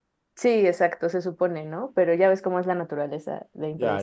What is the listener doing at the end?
taking over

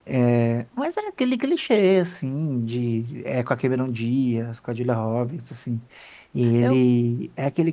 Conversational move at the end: listening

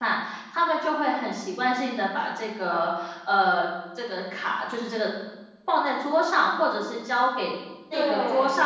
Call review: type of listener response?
listening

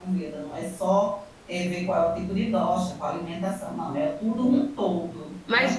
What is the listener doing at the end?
taking over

